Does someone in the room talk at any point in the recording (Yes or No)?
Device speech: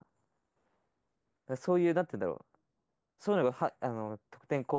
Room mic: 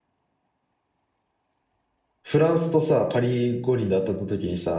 Yes